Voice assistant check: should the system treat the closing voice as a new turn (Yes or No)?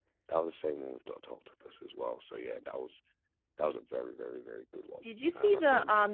Yes